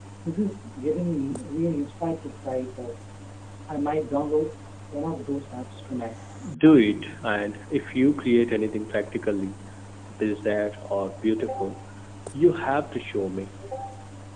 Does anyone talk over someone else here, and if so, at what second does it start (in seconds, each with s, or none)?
none